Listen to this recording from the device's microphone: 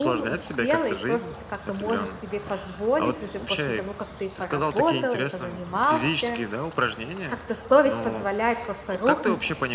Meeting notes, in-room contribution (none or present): present